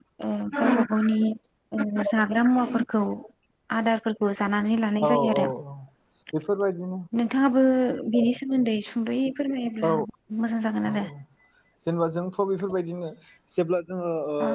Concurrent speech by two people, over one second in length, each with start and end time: none

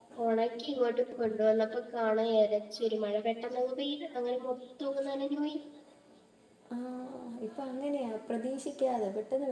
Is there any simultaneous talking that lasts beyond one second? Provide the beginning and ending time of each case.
none

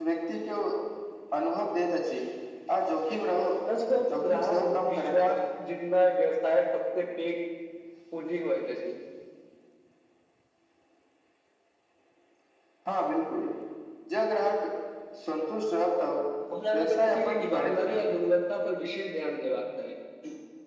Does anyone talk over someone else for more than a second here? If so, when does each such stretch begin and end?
4.1-5.4, 16.7-18.0

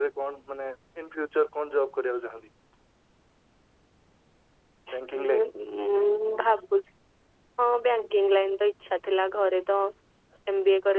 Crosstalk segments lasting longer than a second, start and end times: none

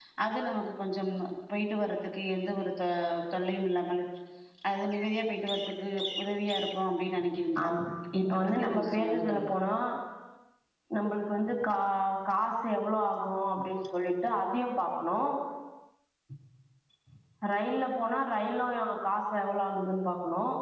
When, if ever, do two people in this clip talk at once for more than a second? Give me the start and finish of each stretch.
8.2-9.5

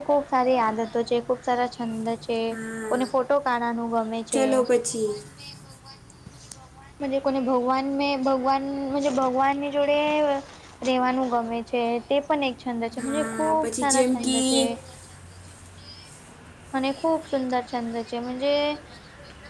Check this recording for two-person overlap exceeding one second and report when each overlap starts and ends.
13.0-14.5

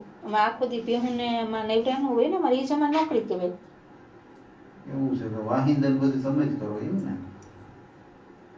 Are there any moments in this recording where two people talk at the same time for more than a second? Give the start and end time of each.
none

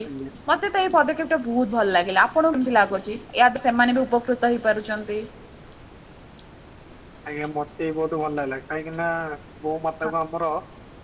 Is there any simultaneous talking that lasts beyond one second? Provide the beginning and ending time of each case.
none

